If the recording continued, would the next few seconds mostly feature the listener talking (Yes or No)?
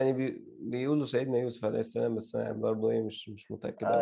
Yes